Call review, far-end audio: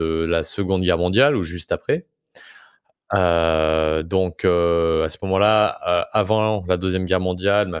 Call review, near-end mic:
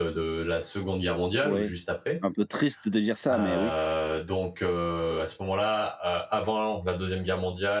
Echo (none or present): present